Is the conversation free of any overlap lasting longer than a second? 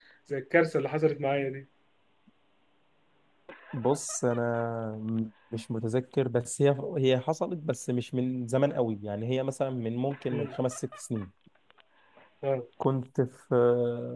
Yes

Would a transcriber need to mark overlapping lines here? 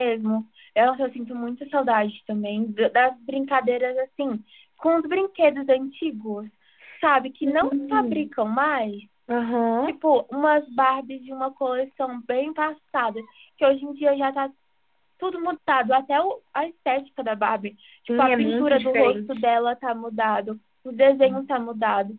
Yes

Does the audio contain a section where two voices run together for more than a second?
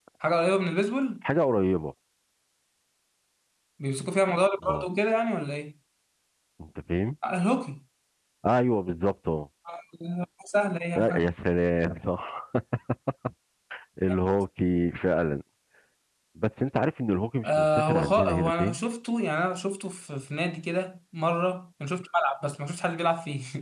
Yes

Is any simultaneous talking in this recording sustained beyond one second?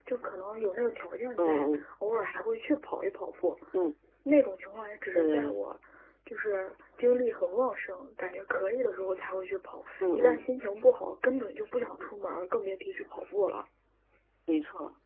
No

